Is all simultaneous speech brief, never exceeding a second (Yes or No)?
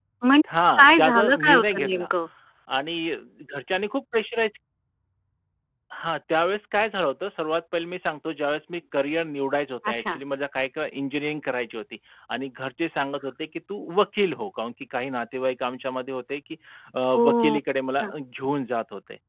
No